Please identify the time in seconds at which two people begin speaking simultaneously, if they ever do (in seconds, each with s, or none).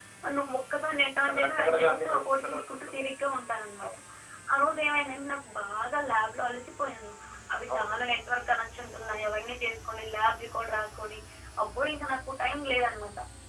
1.3 s